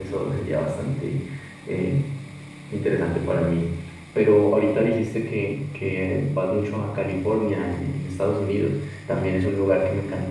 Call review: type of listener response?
listening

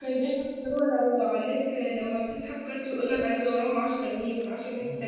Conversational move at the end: taking over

